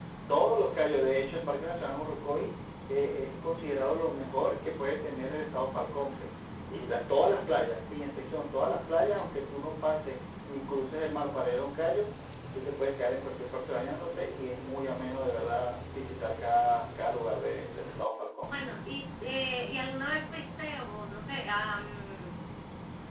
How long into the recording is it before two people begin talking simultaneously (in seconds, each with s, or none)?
none